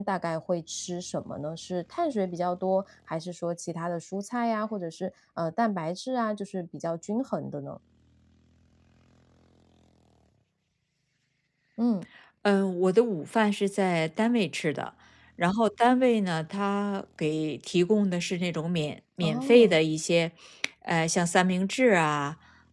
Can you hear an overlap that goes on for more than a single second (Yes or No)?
No